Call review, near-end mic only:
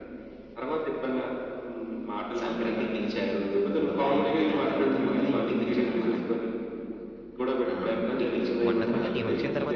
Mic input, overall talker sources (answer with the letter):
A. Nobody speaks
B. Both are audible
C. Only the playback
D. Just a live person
B